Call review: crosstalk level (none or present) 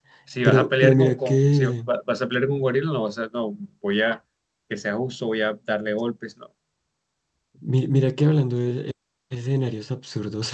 present